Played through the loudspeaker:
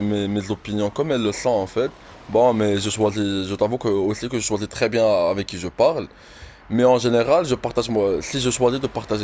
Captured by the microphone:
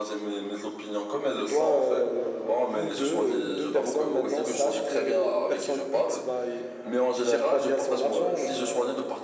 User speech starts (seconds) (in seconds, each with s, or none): 1.3 s